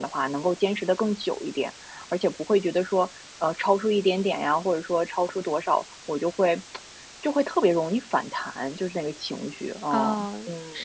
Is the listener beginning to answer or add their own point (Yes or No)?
Yes